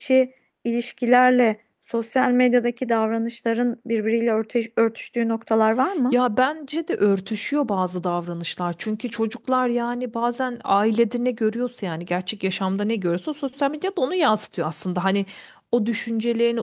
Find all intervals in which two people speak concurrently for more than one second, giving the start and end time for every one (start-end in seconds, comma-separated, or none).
none